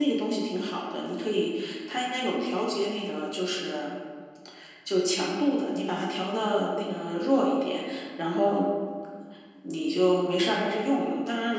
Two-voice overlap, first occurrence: none

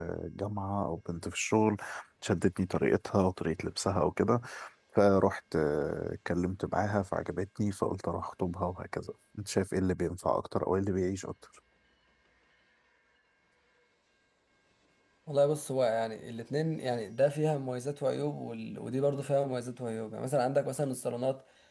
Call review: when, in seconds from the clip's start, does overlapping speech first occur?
none

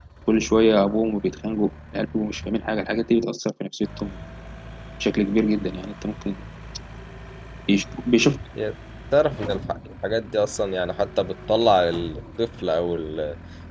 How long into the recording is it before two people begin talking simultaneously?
none

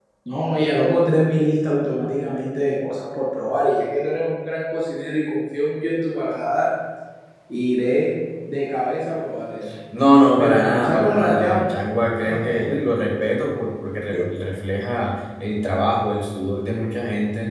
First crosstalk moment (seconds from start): 10.4 s

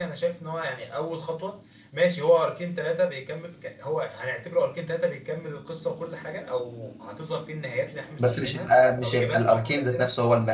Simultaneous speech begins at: 8.2 s

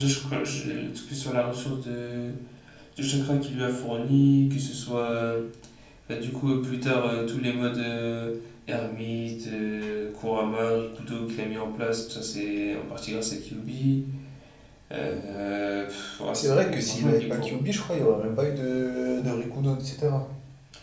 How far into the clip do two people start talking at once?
16.3 s

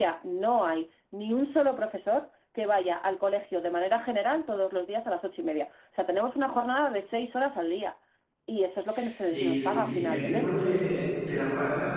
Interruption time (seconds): 9.2 s

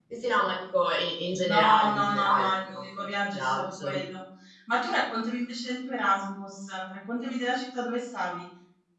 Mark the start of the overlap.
1.4 s

